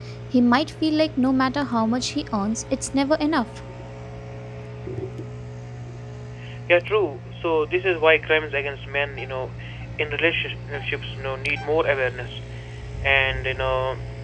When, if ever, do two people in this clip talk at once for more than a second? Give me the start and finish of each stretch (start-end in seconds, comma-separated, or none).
none